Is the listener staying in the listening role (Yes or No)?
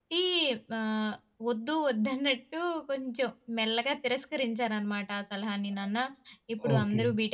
Yes